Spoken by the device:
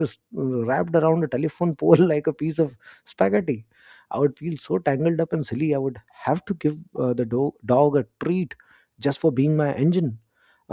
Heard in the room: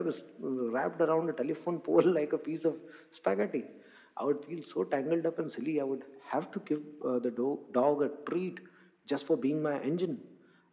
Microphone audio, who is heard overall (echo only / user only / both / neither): echo only